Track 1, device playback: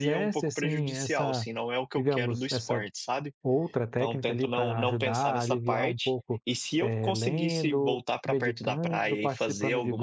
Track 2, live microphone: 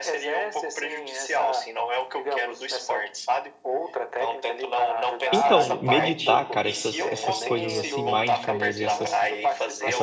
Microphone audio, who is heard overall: both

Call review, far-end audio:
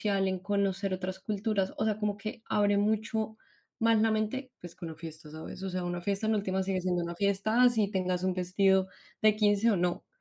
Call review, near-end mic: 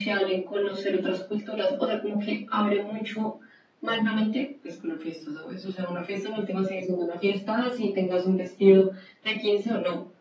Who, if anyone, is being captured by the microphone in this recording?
echo only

